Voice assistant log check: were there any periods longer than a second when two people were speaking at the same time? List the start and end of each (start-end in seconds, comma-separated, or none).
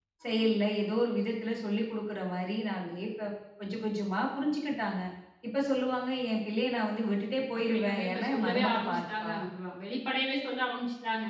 7.6-9.3